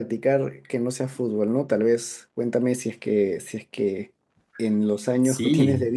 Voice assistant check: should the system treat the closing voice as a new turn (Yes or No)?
No